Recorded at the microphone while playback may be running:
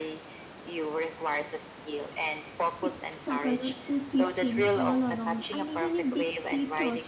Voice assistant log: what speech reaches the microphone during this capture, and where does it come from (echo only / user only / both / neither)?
both